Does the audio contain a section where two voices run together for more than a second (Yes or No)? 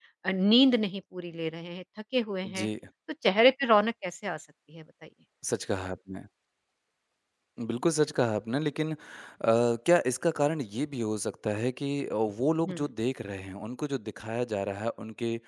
No